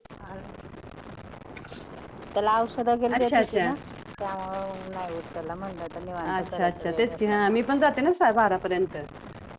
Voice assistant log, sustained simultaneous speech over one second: present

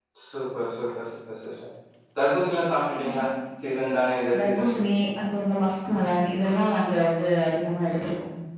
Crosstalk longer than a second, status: none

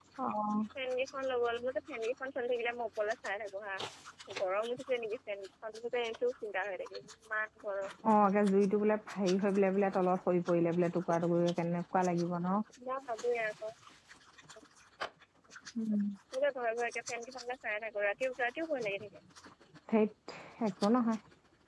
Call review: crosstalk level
none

